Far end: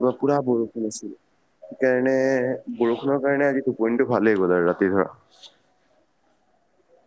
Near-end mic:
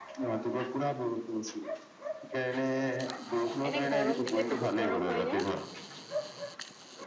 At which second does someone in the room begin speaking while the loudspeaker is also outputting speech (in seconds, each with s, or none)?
3.7 s